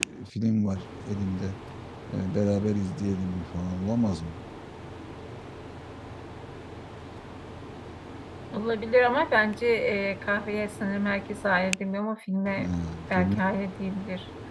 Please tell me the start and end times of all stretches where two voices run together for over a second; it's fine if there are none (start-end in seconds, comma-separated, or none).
none